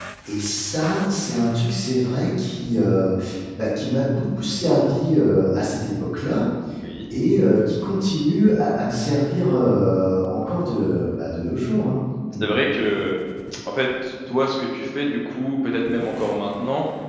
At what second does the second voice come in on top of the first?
none

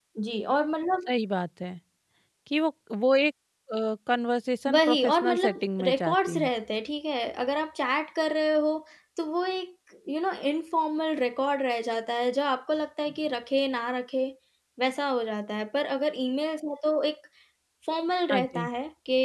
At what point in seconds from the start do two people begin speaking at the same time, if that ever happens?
4.7 s

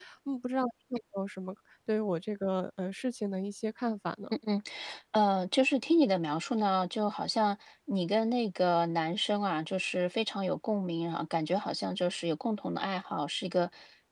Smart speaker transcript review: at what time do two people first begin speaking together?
none

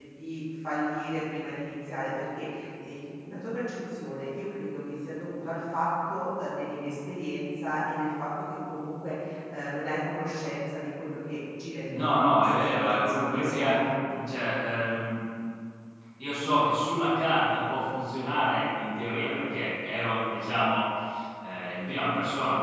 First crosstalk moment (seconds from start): 11.9 s

